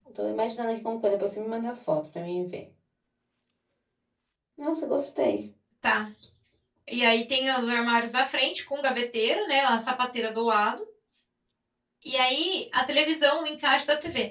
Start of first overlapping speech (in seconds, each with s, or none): none